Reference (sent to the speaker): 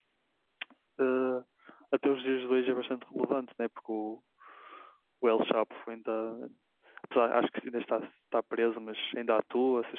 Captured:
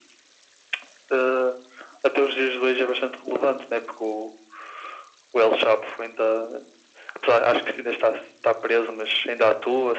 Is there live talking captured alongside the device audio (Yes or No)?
No